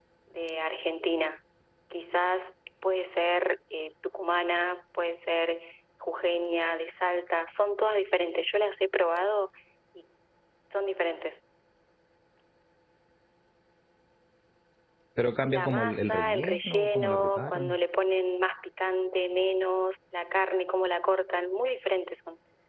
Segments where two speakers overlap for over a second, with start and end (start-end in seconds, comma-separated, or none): 15.5-17.8